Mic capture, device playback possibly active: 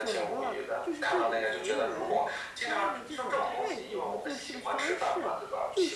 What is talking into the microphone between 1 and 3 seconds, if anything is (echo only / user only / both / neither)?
both